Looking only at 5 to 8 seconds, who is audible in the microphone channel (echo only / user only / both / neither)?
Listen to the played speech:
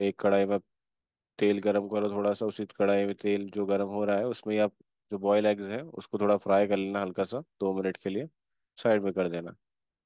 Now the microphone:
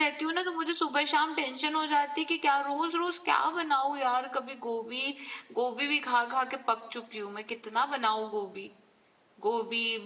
user only